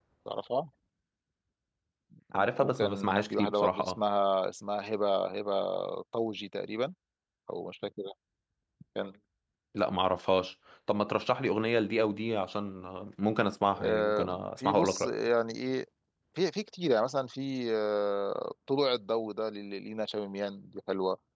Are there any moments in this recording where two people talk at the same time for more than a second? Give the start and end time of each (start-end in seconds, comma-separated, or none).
2.3-4.0, 13.8-15.1